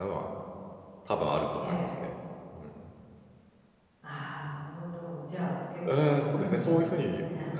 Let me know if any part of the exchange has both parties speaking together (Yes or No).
Yes